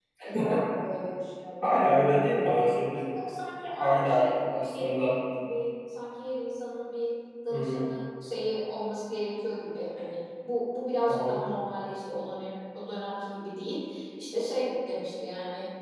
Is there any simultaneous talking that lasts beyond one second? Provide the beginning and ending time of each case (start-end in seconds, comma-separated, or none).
3.8-5.2